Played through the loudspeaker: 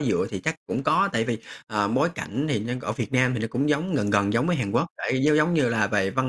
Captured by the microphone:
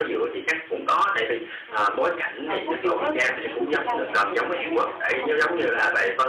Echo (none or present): present